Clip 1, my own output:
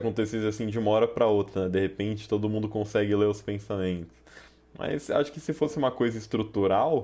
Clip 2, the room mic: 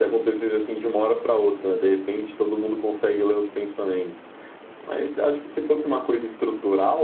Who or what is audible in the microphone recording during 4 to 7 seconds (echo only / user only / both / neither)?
echo only